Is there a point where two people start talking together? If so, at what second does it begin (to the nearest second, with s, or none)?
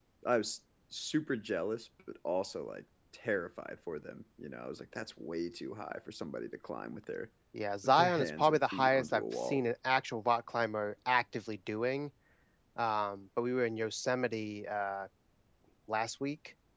8 s